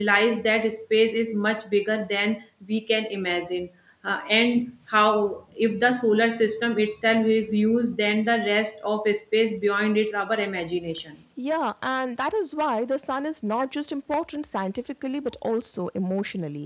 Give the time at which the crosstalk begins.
none

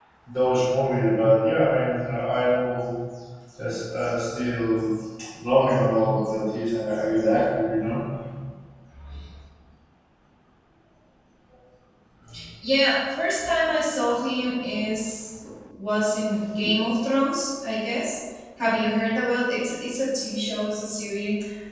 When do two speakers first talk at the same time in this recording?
none

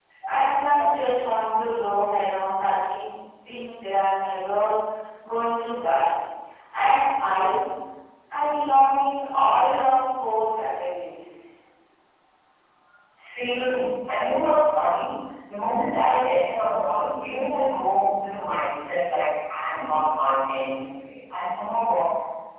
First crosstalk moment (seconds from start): none

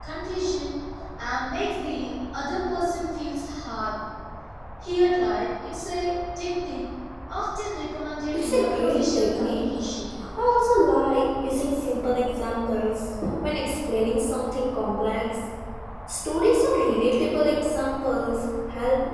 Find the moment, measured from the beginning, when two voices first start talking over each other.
8 s

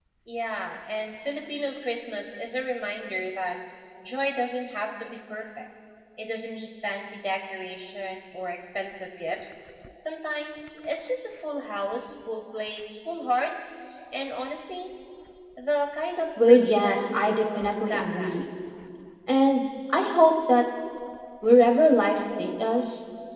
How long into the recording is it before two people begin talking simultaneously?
16 s

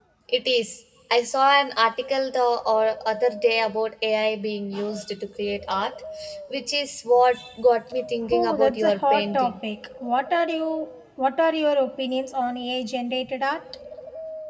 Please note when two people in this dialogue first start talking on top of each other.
8 s

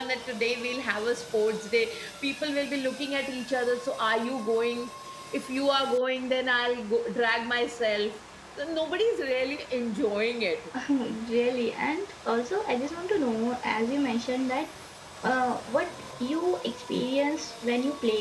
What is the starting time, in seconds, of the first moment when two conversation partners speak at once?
none

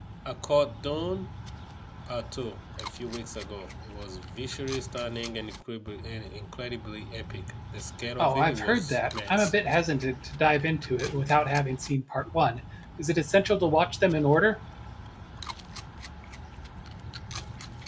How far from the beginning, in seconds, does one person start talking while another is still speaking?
8 s

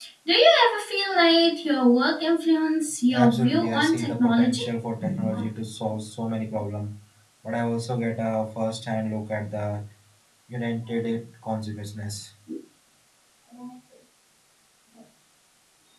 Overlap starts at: 3 s

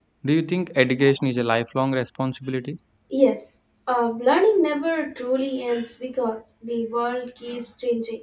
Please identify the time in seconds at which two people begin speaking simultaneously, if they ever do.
none

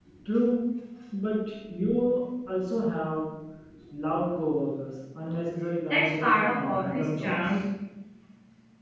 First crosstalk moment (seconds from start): 6 s

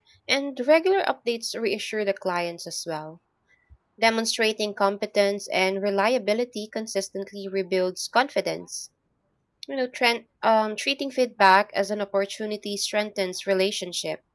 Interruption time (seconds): none

